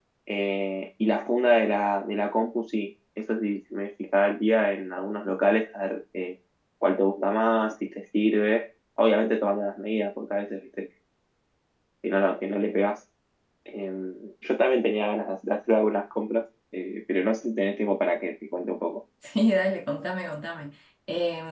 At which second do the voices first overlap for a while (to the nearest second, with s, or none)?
none